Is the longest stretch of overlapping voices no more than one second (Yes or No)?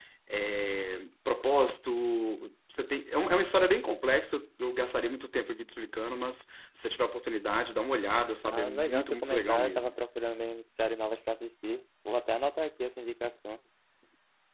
No